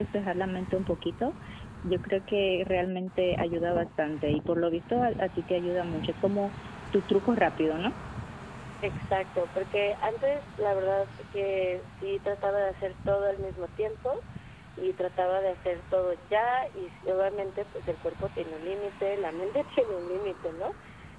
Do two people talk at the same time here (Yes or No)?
No